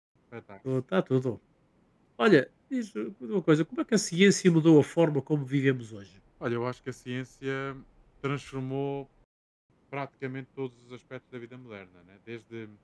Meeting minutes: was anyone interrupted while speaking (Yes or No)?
No